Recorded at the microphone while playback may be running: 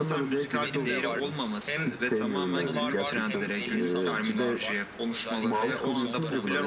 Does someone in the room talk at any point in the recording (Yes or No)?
Yes